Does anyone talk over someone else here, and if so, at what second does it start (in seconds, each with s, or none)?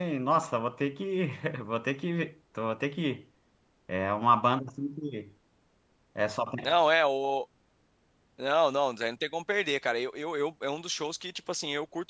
none